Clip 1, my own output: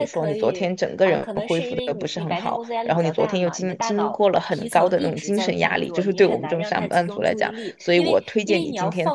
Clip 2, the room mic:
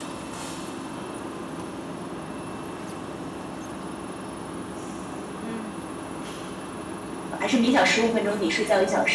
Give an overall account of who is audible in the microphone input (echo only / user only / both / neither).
user only